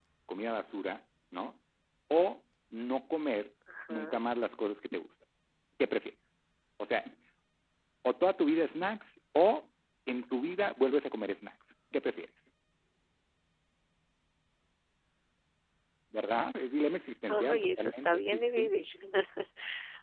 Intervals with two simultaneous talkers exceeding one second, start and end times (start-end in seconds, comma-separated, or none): 17.5-18.7